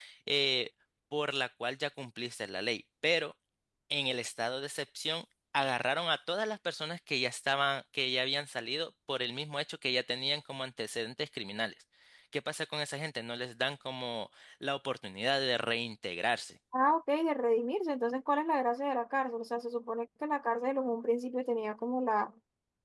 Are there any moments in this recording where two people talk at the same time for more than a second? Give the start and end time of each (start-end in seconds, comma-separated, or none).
none